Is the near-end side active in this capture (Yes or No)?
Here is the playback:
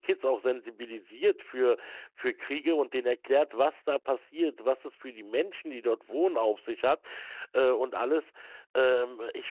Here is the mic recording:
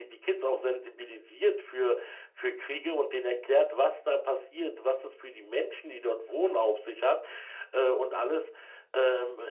No